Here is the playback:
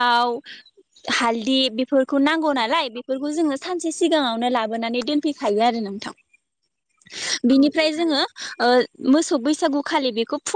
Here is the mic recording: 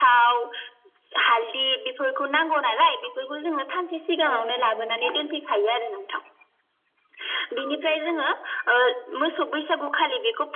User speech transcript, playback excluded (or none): औ हागोन नोंथां।